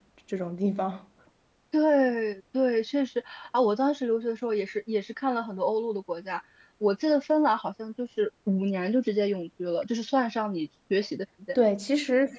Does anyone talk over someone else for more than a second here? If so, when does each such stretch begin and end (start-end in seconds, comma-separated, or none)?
none